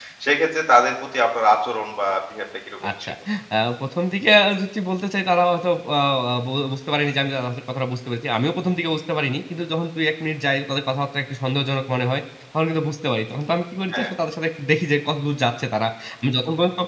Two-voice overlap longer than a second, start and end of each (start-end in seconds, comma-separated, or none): none